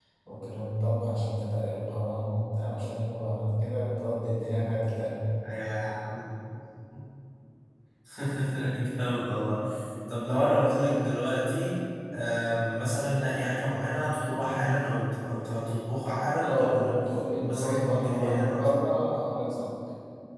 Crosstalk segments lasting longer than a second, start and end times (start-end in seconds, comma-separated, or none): 17.4-18.7